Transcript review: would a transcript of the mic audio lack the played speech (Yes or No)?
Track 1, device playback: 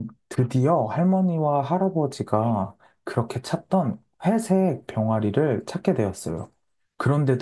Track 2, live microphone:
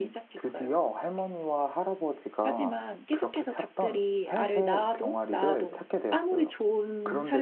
No